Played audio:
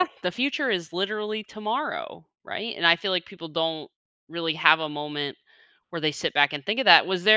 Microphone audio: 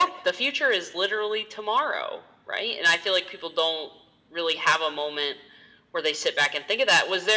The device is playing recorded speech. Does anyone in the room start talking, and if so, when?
none

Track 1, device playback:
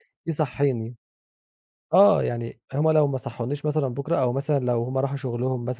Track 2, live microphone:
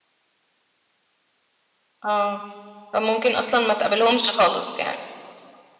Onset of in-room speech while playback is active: 2 s

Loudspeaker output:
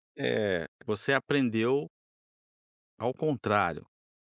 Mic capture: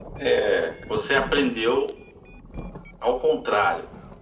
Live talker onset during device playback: none

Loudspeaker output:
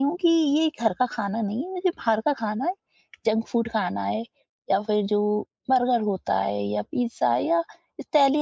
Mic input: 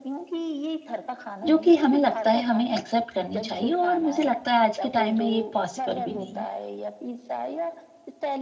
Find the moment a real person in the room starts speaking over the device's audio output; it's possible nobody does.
1 s

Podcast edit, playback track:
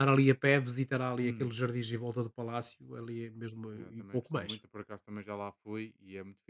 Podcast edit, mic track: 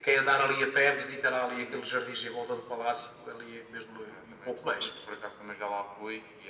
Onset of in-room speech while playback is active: none

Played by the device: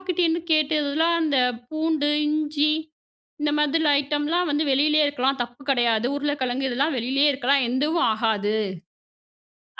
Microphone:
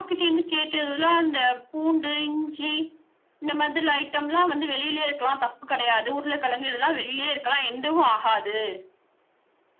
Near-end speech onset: none

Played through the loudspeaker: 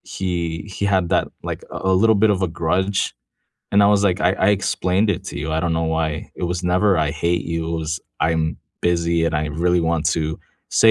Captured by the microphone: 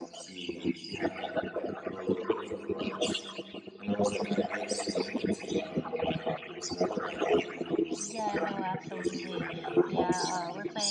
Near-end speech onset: 8 s

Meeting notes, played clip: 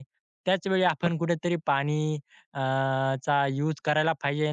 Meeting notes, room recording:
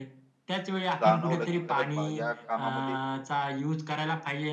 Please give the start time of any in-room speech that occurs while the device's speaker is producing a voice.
1 s

